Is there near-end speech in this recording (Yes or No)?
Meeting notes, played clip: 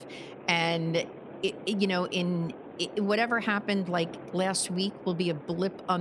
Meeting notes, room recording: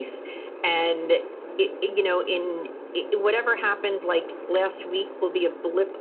No